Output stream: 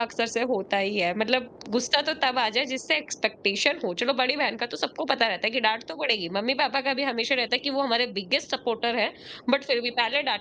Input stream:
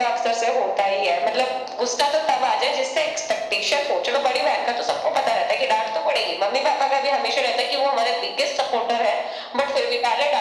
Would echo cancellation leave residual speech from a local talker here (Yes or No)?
No